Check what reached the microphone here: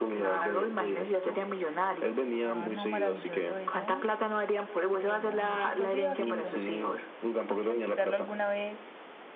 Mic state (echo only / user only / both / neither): both